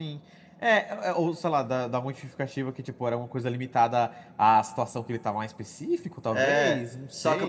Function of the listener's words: taking over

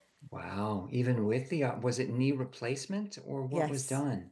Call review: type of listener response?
taking over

